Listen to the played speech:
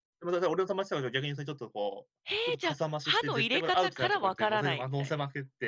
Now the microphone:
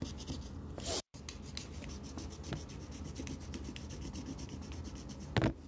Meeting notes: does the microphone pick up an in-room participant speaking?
No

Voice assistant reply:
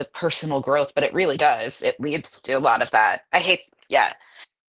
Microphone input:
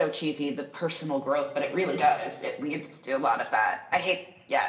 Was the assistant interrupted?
No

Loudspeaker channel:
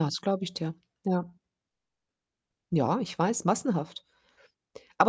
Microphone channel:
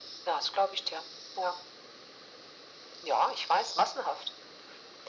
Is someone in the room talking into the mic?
No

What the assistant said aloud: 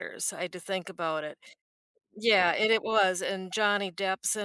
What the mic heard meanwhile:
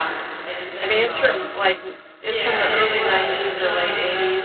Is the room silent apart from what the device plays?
No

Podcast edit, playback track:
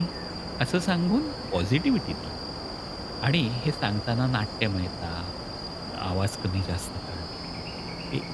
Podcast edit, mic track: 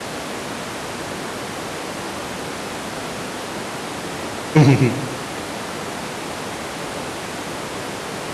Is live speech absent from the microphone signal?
No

